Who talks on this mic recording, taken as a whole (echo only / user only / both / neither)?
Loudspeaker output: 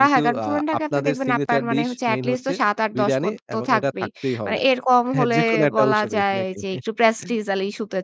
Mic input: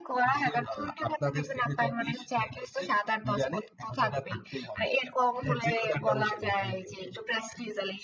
echo only